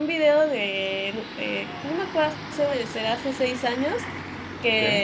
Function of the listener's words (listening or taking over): listening